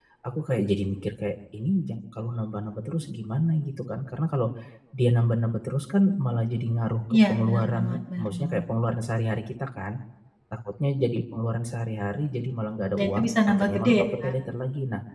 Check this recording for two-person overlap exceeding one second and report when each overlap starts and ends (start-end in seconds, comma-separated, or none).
7.1-8.6, 12.9-14.3